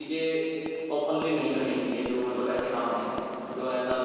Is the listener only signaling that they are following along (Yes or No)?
No